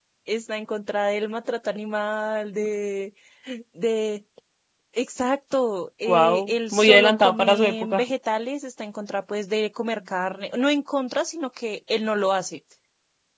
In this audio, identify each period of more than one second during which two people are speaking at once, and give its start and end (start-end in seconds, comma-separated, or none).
6.0-8.0